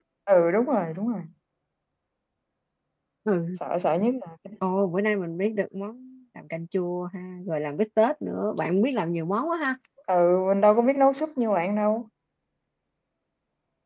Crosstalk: none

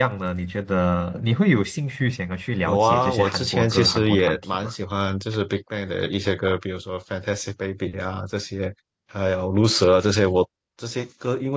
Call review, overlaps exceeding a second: present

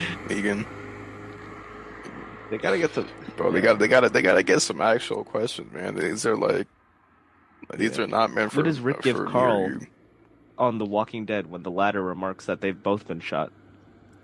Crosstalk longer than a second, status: present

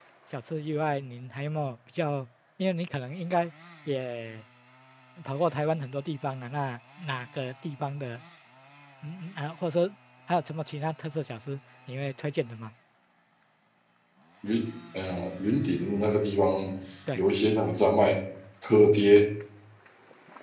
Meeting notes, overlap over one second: none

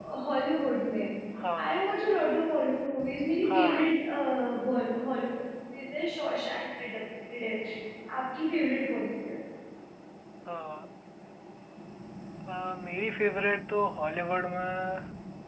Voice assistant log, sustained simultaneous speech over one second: none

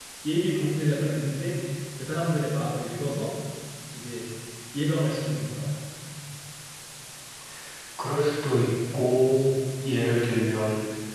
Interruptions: none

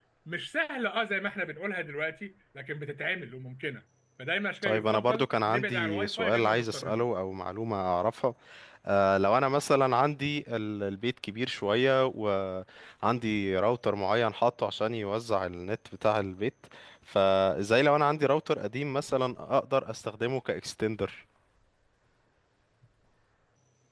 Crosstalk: present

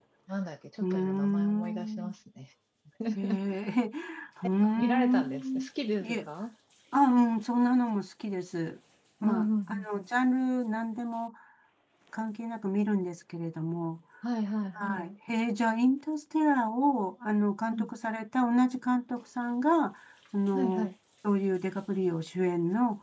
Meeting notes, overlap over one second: present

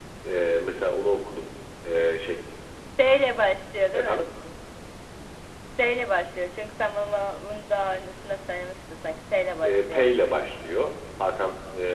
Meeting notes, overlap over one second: none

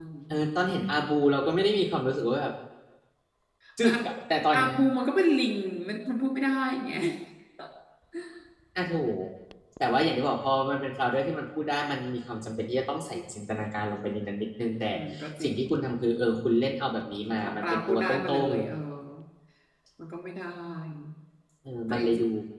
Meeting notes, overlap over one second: present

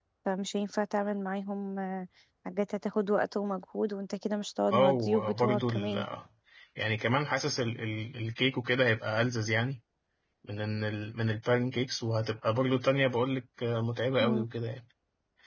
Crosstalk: present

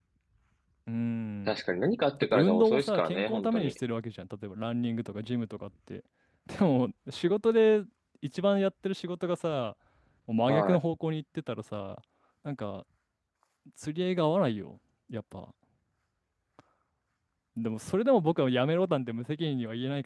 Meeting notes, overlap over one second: present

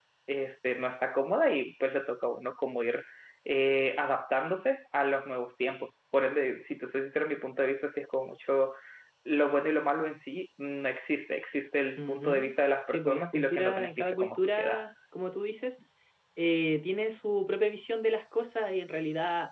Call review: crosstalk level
present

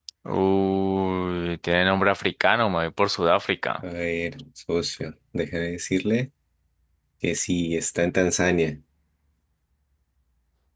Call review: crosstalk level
none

